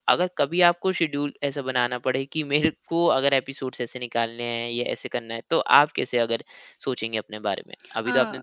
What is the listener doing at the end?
taking over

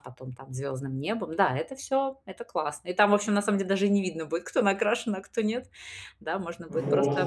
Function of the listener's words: listening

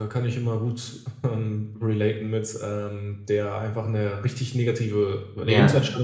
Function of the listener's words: listening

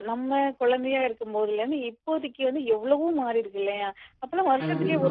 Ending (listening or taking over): listening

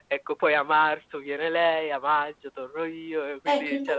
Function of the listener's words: taking over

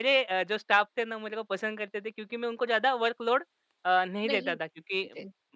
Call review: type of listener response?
listening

